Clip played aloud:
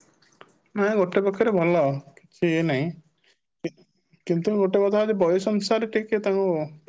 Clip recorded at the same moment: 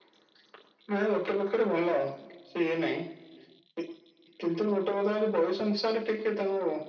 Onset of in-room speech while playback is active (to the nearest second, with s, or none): none